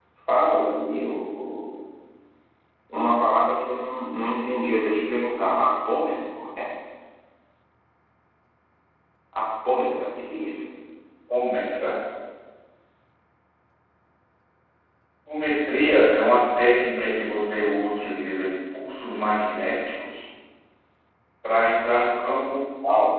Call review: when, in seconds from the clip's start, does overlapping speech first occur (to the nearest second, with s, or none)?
none